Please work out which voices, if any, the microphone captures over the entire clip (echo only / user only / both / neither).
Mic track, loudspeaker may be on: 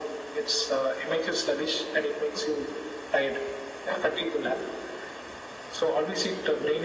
echo only